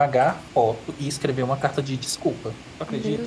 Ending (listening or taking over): taking over